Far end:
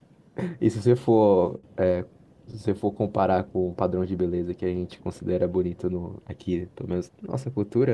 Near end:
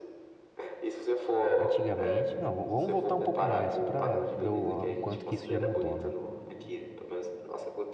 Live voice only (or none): antigamente. Não, v- vamos voltar um pouco mais, só para ver o, o quanto que isso já mudou, né?